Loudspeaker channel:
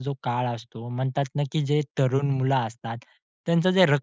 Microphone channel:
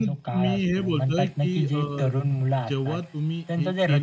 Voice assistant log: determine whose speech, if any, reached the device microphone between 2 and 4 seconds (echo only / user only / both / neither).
both